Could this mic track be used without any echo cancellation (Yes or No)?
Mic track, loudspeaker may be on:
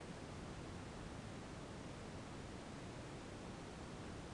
Yes